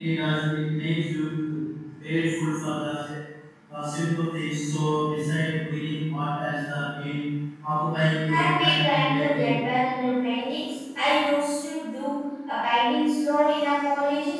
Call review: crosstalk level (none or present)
present